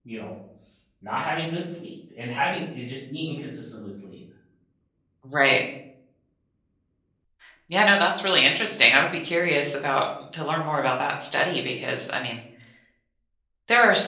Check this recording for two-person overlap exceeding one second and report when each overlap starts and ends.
none

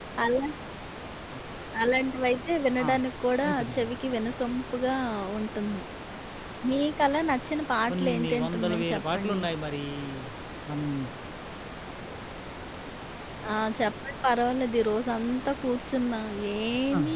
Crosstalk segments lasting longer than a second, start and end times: 7.9-9.4

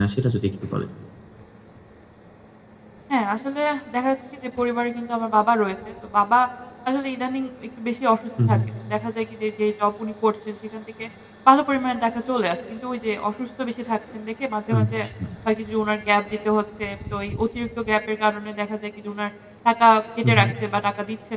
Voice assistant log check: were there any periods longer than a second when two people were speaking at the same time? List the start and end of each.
none

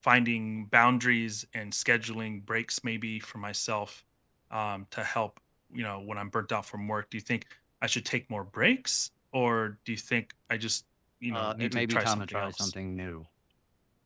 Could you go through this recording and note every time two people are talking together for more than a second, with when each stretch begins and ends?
11.3-12.7

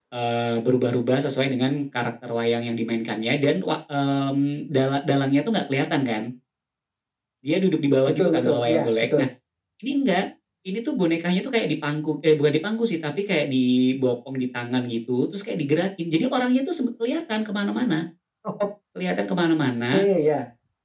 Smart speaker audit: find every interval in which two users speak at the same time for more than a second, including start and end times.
8.1-9.3

